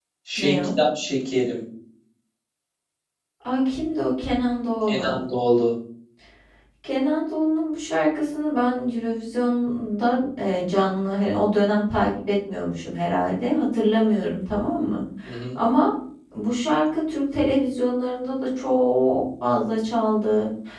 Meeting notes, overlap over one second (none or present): none